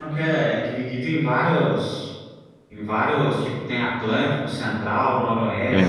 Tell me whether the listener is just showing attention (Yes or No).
No